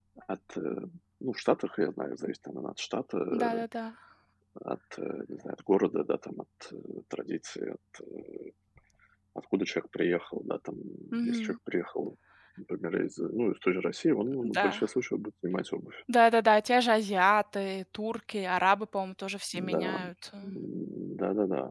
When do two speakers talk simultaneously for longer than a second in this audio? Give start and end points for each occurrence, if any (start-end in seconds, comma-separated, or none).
none